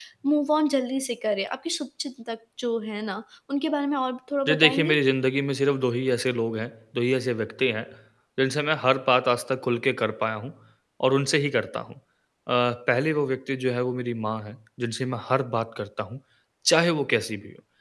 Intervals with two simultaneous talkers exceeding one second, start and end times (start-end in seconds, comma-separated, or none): none